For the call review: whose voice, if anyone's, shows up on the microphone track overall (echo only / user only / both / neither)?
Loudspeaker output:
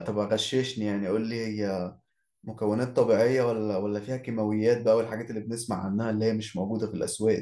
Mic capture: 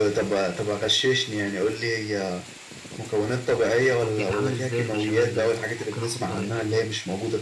both